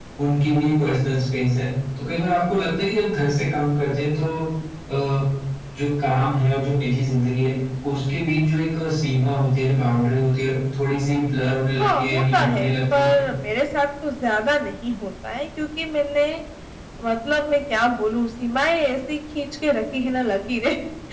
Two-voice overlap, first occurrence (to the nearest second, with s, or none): 12 s